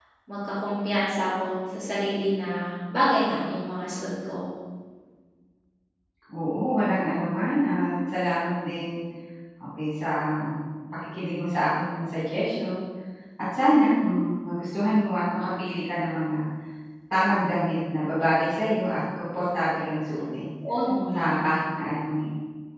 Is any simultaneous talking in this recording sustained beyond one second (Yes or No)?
No